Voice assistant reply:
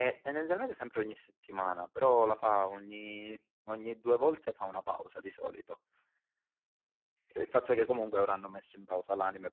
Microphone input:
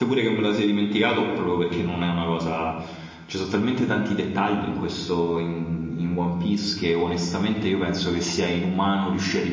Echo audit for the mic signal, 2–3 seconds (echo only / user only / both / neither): user only